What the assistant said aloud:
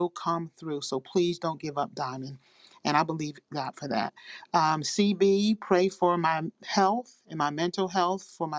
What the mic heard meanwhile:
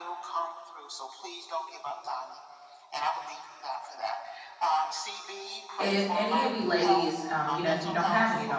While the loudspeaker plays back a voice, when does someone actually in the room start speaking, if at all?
5.8 s

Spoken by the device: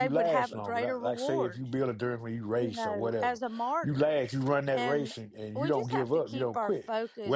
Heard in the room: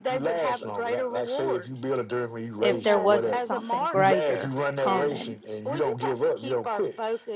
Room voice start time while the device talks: 2.6 s

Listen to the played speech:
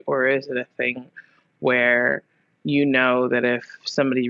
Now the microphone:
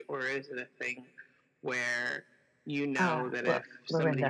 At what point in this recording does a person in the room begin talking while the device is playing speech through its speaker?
3.0 s

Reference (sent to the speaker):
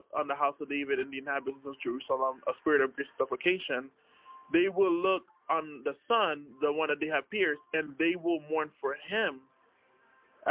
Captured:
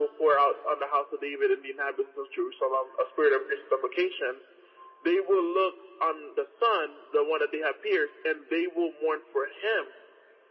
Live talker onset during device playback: none

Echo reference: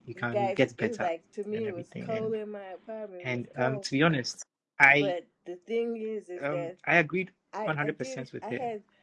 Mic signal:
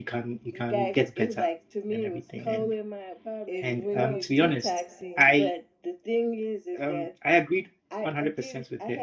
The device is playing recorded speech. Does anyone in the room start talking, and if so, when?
3.4 s

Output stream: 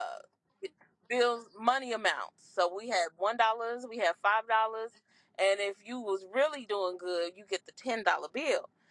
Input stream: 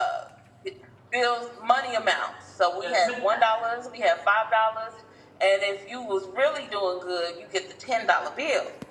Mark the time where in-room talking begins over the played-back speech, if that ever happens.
2.8 s

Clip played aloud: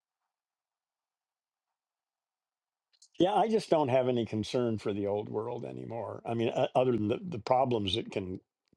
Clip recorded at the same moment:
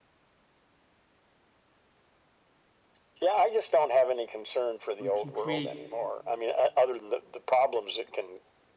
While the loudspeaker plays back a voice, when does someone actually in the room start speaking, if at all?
5.0 s

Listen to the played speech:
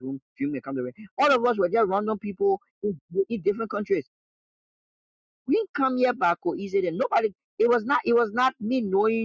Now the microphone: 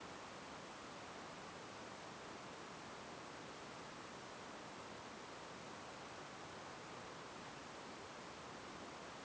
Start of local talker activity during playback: none

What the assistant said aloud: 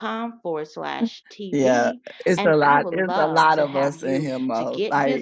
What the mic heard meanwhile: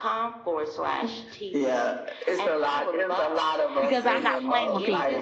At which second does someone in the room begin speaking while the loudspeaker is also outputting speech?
3.8 s

